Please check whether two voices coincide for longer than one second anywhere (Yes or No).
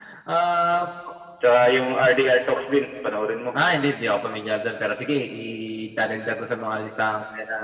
No